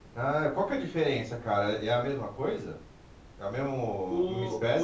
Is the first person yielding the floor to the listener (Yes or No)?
Yes